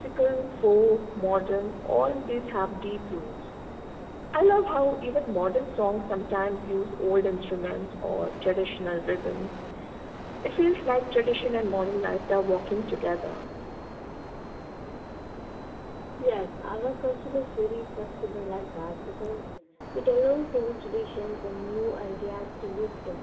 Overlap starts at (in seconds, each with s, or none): none